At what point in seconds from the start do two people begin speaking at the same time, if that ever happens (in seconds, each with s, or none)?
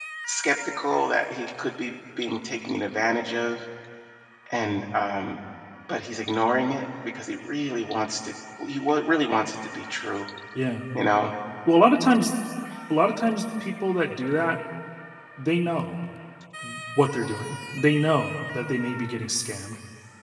none